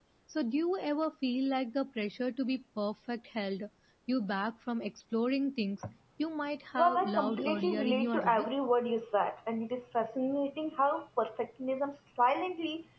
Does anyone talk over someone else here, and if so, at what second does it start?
7 s

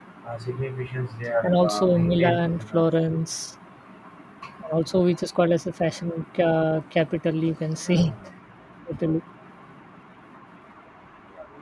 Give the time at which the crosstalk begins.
1 s

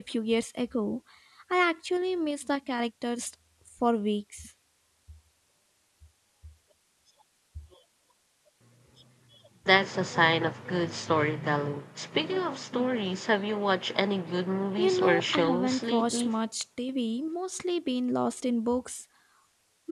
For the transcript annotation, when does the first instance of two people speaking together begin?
15 s

